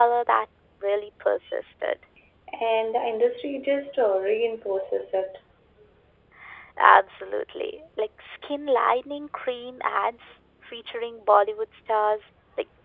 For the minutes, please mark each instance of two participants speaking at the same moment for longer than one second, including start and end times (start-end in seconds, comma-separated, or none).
none